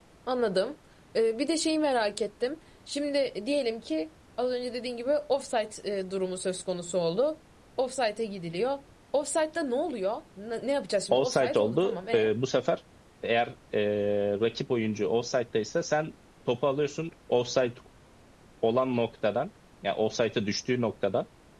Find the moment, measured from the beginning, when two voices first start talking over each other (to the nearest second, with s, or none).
11 s